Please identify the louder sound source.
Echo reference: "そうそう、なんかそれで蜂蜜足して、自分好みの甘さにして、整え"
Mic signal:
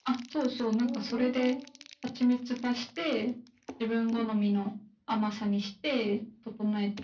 echo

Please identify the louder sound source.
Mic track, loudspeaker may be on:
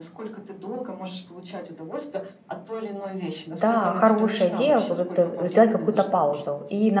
user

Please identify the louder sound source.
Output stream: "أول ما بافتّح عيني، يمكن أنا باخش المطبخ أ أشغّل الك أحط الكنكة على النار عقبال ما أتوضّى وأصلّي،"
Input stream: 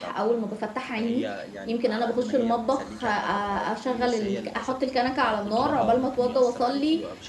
echo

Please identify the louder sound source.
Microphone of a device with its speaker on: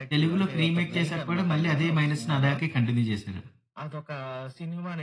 user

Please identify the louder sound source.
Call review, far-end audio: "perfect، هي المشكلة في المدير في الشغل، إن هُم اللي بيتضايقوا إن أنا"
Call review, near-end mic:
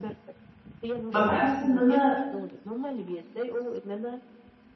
user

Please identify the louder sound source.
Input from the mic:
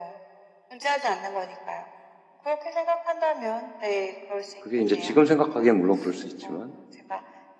user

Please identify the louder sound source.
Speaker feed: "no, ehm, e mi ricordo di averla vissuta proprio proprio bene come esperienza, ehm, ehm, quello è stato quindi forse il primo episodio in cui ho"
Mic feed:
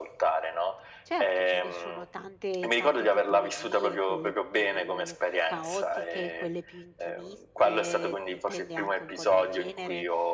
echo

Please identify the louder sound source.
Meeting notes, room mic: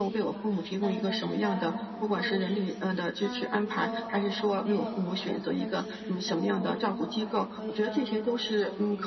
echo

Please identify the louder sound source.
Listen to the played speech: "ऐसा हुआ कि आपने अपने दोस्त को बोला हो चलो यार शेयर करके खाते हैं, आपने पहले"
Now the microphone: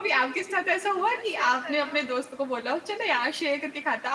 echo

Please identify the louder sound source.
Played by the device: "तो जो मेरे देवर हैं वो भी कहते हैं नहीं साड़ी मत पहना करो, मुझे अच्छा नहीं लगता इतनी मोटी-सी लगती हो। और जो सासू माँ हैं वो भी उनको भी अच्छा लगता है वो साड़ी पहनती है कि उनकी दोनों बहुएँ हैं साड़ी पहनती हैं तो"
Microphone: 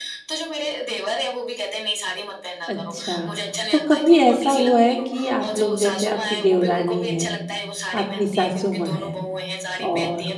user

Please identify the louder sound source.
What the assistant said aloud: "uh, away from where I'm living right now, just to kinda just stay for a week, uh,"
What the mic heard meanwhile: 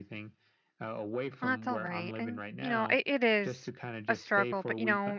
user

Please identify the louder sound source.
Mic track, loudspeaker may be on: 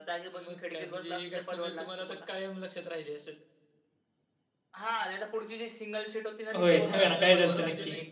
user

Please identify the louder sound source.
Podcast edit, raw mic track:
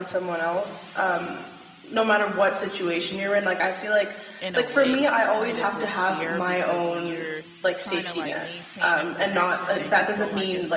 echo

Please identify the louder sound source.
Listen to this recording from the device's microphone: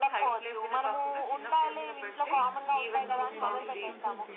echo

